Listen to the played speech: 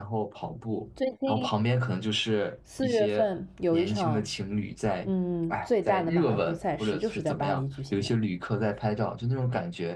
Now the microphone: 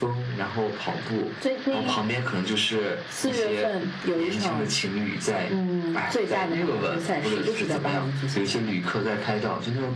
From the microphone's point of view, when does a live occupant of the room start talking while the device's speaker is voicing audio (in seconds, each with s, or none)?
none